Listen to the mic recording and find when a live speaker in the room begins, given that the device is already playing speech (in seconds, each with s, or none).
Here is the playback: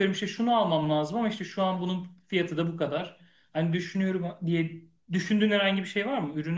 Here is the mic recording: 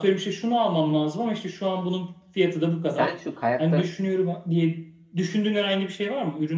2.9 s